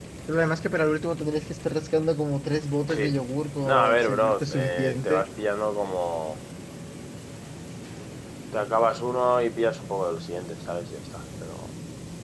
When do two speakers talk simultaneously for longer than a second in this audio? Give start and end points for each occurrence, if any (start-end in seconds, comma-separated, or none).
3.6-5.2